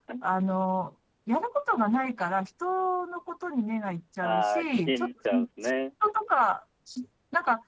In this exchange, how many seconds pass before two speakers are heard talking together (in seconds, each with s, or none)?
4.2 s